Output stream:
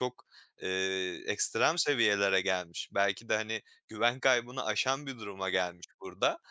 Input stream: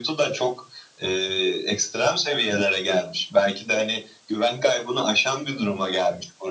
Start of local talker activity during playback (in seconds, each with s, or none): none